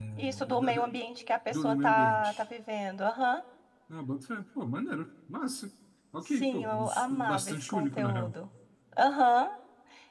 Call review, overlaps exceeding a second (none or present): present